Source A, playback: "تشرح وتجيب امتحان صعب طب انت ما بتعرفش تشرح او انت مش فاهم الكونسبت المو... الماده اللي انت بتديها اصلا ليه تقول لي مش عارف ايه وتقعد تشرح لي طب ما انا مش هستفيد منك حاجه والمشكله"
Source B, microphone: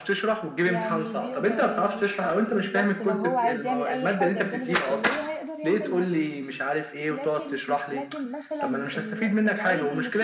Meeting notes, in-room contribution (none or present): present